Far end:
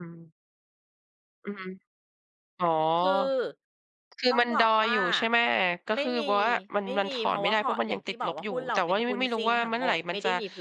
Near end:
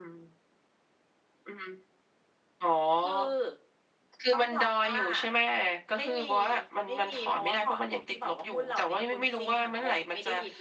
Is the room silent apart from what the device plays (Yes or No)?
Yes